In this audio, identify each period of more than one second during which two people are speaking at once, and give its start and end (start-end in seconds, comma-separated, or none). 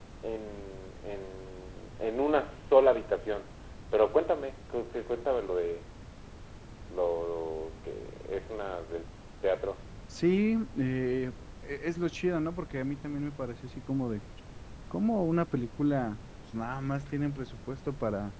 none